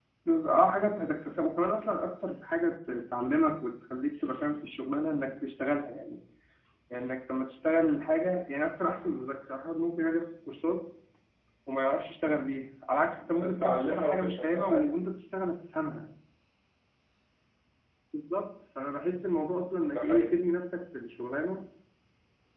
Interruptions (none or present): present